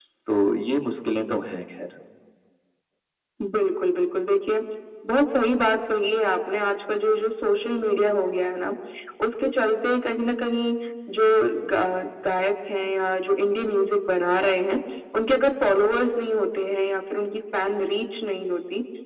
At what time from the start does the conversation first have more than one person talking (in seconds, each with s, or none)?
none